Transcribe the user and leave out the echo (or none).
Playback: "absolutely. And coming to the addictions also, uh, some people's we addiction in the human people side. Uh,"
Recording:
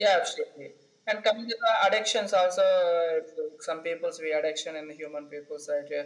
none